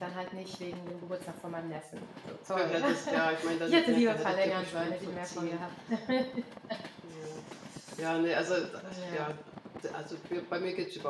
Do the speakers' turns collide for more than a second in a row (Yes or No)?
Yes